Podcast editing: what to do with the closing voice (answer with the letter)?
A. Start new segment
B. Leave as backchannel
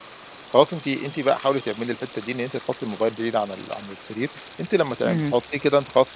B